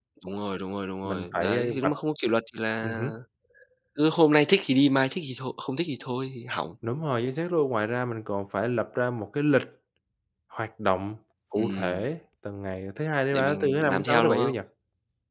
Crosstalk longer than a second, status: present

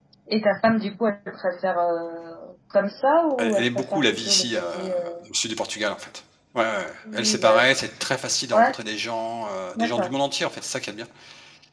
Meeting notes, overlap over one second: present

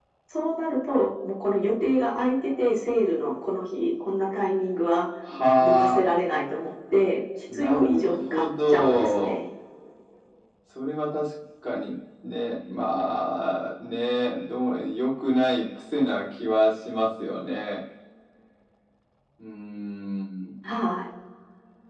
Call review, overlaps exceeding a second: present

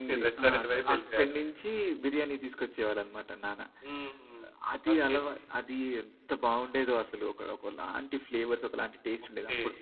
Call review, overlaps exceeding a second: present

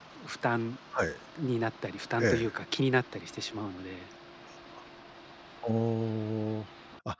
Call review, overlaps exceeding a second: none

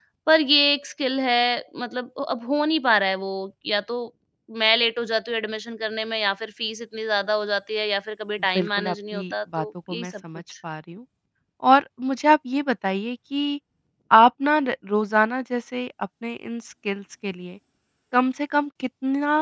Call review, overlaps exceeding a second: present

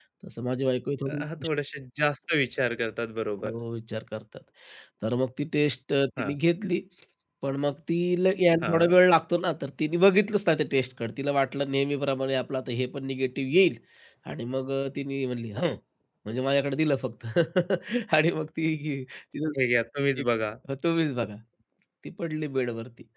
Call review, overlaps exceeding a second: none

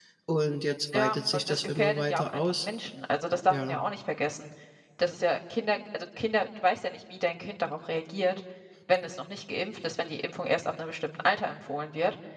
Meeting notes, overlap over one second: present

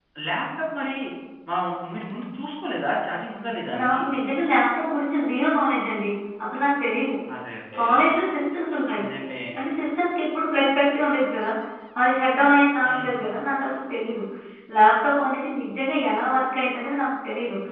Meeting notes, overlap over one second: none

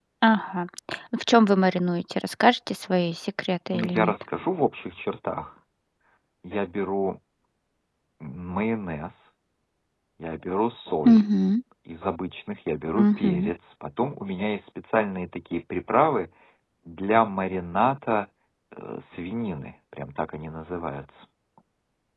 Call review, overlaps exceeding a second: none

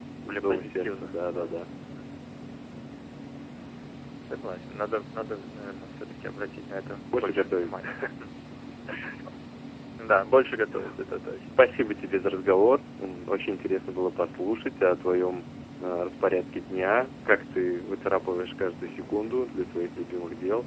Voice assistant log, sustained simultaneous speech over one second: present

